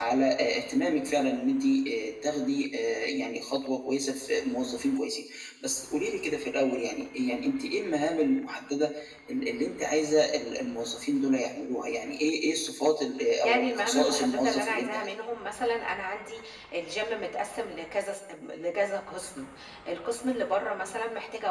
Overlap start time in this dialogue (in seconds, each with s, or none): 13.4 s